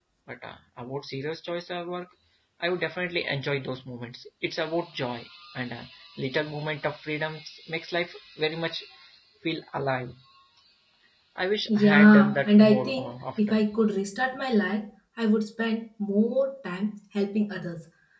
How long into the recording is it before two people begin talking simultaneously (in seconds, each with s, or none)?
11.7 s